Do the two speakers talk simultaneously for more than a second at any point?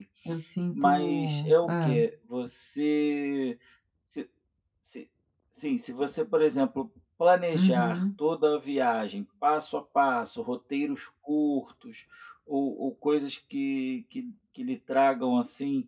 Yes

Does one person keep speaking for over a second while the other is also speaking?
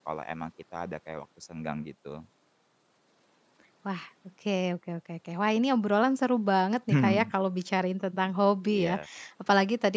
No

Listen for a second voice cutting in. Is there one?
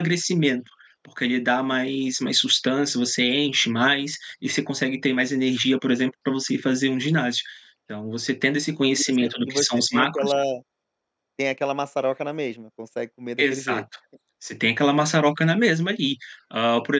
Yes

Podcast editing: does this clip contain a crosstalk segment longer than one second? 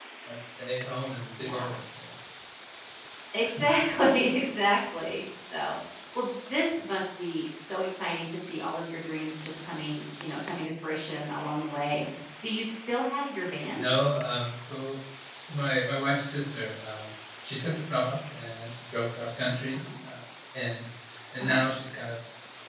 No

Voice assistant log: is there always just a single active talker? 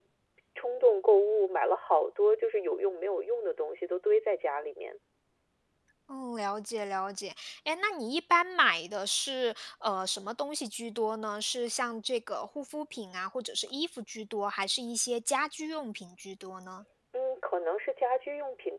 Yes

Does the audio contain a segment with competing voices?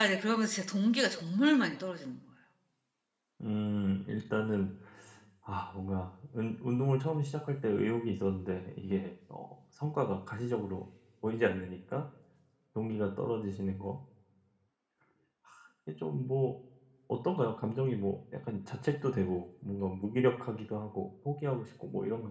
No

